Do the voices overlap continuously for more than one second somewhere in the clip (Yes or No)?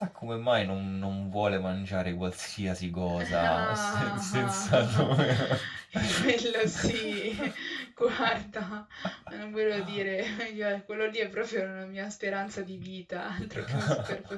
Yes